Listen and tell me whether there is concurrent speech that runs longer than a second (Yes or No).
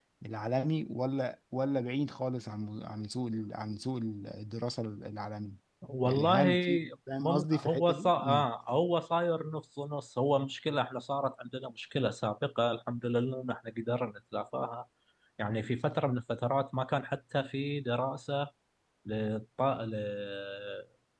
Yes